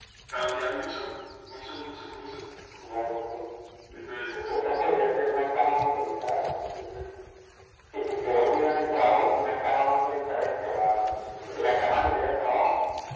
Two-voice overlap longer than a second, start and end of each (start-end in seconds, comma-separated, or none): none